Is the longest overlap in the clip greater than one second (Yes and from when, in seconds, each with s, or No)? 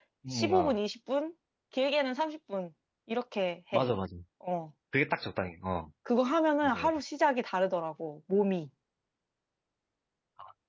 No